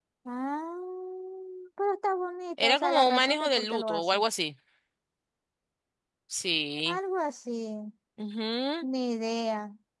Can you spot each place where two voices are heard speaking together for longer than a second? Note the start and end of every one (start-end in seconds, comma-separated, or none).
2.6-4.2